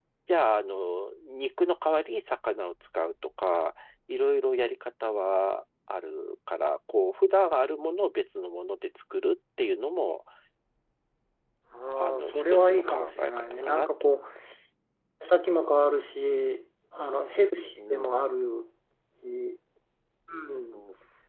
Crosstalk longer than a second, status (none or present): present